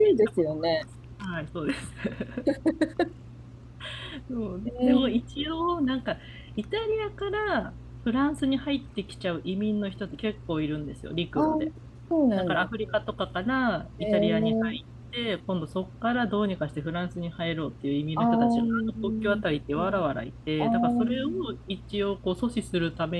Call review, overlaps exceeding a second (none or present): present